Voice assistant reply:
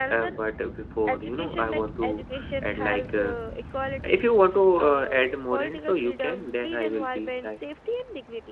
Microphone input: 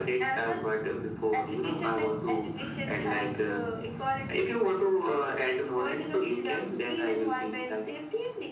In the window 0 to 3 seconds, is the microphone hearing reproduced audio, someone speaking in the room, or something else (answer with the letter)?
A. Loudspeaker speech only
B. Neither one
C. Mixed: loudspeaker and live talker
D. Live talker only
A